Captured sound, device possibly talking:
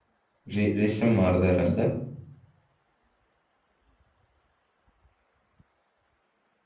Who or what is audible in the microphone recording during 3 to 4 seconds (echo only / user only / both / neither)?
neither